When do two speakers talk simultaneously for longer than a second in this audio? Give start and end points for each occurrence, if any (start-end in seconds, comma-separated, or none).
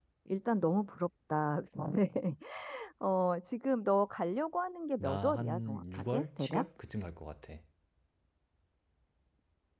5.0-6.6